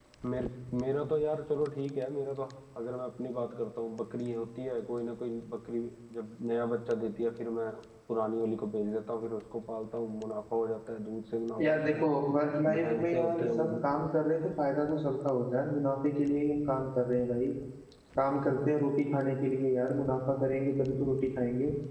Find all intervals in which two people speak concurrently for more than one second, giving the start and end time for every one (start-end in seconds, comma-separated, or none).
12.7-14.0